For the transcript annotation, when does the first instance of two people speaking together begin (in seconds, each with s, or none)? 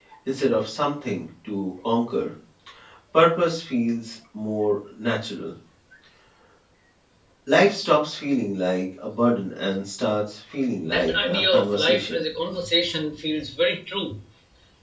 10.8 s